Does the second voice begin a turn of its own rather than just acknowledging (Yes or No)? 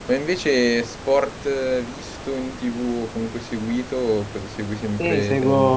Yes